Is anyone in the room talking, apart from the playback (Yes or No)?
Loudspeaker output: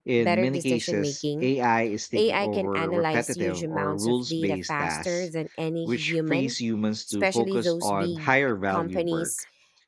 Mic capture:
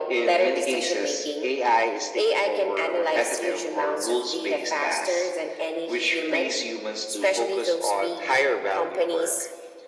No